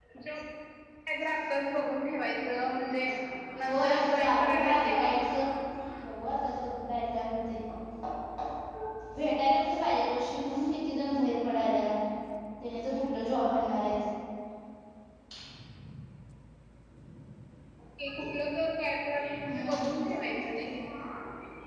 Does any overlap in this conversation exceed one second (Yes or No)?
Yes